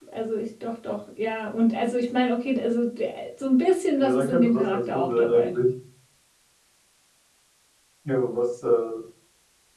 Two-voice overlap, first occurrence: 4.0 s

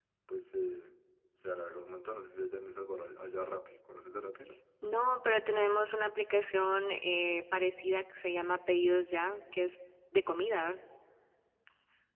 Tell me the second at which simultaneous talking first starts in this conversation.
none

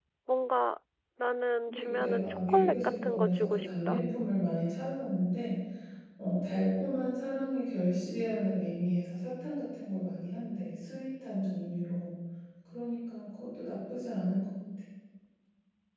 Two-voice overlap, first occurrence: 1.7 s

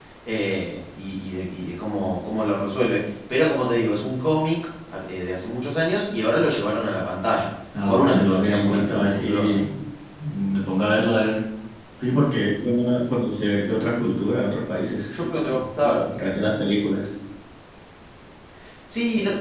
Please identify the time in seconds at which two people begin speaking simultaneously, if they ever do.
7.7 s

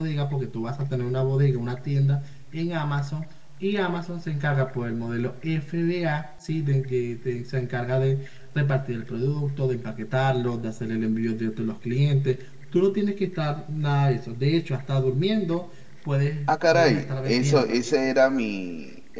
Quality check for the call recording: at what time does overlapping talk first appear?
16.5 s

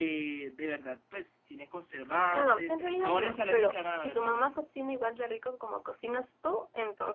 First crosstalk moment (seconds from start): 2.3 s

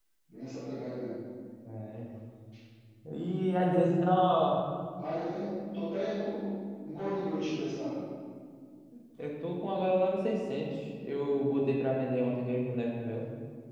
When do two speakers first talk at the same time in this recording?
none

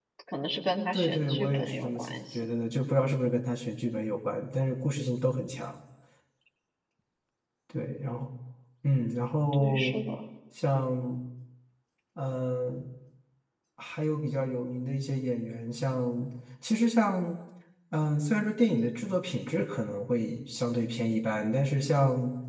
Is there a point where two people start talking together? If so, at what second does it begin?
0.9 s

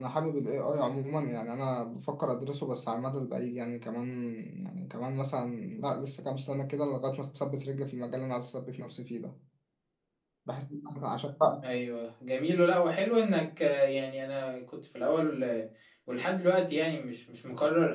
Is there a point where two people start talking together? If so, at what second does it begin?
none

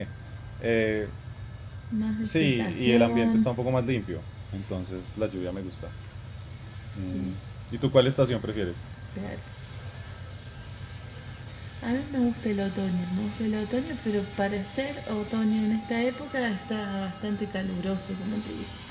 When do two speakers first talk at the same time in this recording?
2.2 s

